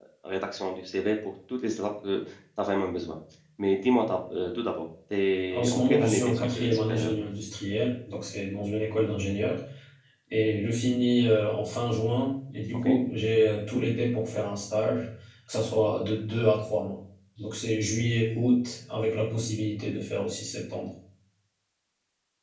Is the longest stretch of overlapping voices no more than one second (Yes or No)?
No